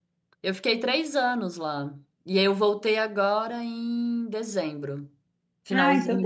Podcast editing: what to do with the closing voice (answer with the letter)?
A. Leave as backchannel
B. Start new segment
B